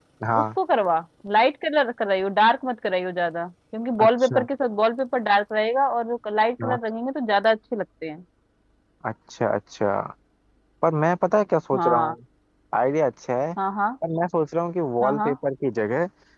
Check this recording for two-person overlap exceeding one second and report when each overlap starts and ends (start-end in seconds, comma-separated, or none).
none